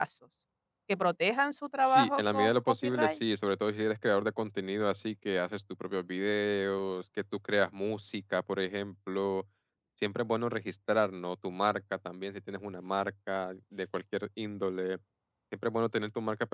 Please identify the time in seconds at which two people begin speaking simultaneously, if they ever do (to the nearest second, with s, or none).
2 s